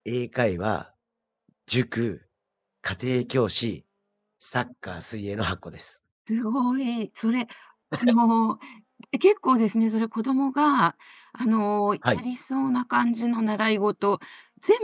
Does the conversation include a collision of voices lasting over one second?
No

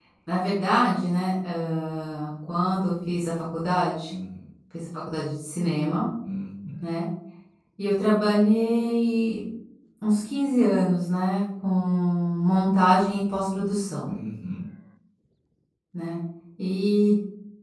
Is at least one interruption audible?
No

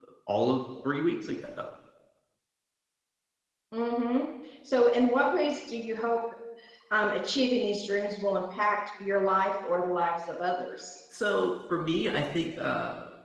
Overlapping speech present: No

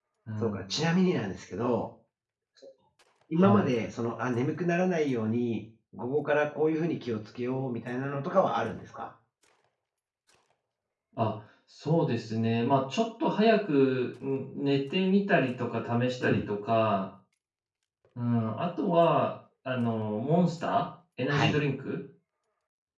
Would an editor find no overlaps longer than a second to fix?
Yes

